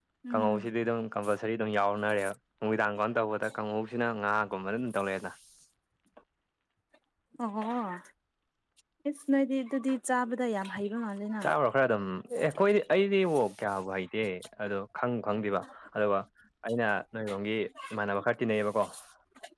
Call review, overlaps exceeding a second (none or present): none